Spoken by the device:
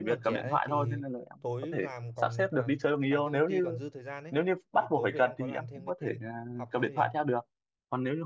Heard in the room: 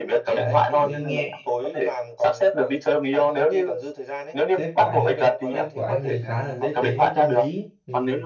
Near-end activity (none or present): present